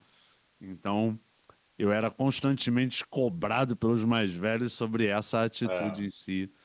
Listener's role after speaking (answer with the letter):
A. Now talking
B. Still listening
B